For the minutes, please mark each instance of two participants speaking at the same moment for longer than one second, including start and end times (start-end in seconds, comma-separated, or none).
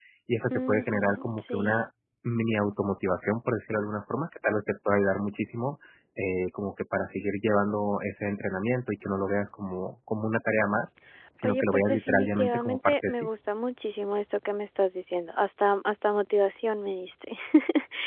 0.5-1.9, 11.4-13.3